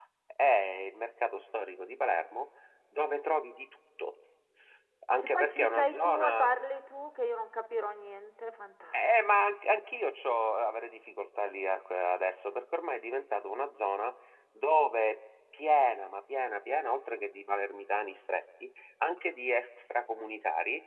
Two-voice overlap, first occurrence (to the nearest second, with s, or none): 5 s